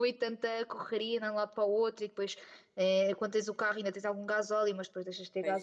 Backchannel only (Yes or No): Yes